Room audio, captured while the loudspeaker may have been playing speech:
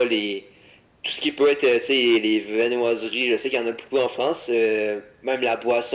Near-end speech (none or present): none